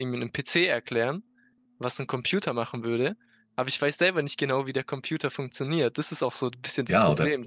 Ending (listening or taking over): taking over